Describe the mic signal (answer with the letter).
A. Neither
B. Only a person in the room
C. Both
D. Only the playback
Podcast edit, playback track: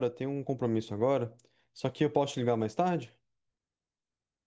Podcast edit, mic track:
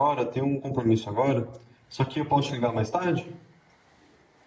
D